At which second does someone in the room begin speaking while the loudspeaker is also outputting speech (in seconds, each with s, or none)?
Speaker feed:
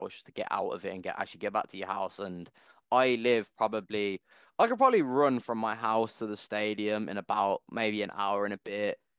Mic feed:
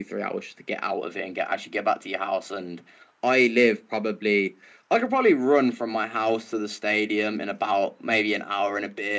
none